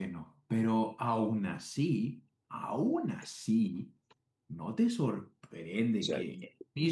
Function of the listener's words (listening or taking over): listening